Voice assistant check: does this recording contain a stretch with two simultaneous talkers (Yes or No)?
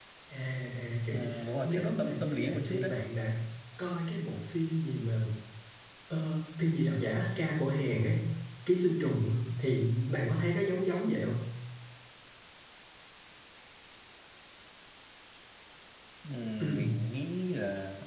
Yes